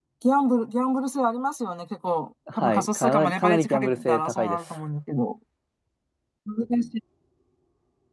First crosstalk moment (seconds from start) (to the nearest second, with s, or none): 2 s